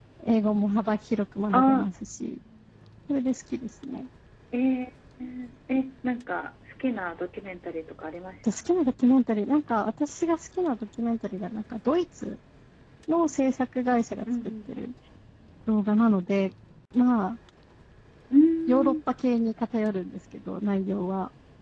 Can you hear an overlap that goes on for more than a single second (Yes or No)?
No